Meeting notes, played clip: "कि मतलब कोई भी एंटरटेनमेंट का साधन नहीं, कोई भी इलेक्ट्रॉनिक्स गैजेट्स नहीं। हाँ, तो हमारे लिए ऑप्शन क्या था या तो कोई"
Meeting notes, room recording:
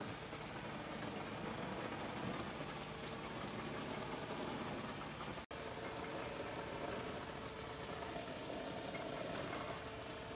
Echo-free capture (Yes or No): Yes